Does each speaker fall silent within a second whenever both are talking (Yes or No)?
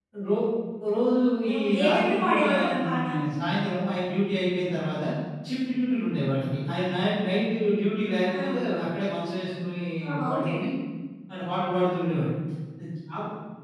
No